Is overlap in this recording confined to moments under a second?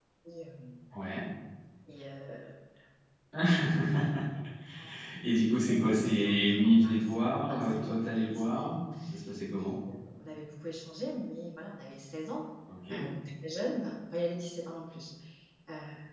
No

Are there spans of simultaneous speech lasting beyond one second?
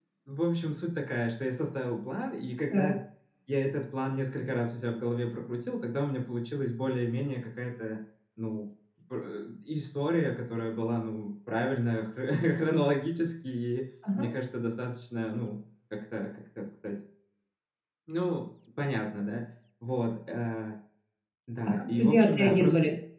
Yes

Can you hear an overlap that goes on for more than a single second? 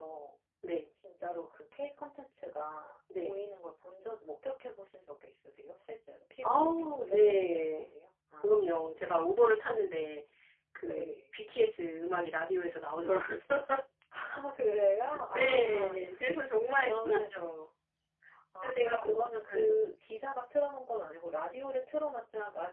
Yes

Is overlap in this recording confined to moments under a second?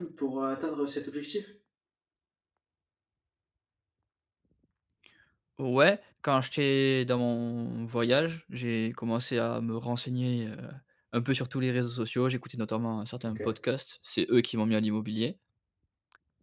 Yes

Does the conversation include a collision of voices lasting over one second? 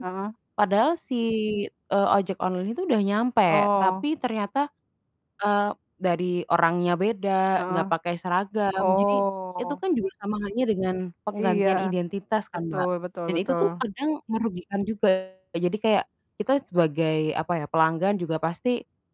No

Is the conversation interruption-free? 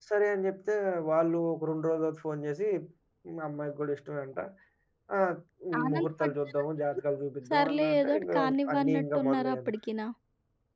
No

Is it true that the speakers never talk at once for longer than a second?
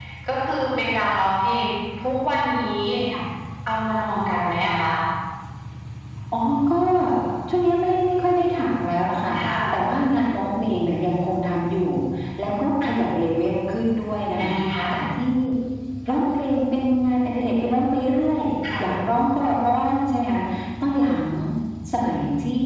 Yes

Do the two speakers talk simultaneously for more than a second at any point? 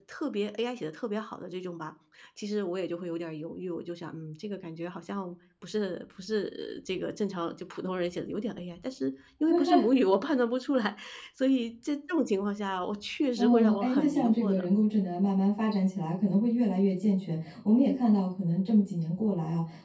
Yes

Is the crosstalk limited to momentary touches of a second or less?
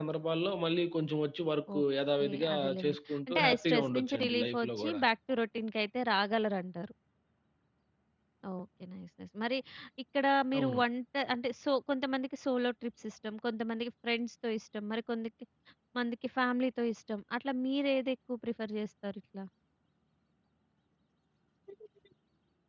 No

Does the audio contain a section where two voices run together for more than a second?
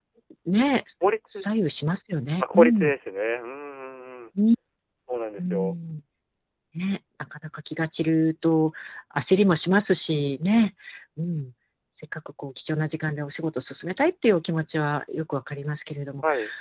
No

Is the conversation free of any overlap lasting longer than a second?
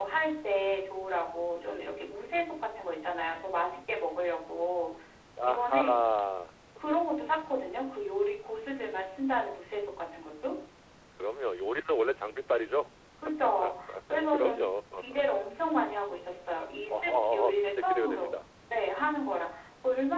No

